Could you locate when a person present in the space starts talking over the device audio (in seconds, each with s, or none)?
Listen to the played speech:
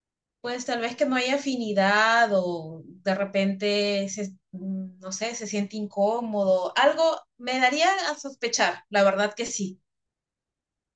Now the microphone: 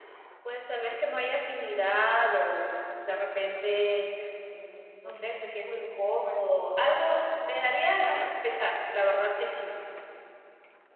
5.0 s